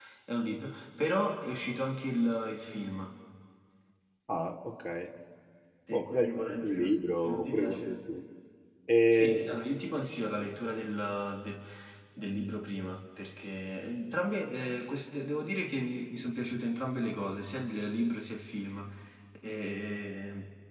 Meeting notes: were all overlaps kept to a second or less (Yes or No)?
No